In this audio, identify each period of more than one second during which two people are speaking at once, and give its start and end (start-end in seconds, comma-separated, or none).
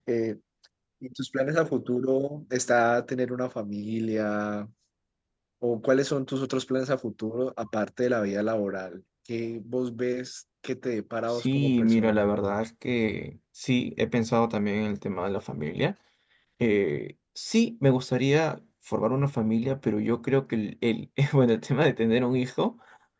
11.3-12.5